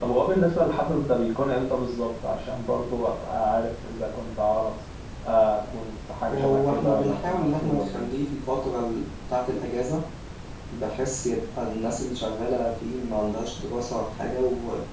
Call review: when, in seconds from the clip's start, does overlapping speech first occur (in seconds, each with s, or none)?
6.2 s